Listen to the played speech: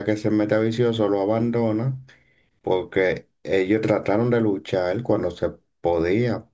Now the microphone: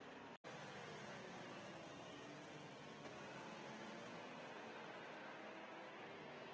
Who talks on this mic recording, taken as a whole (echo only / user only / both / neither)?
neither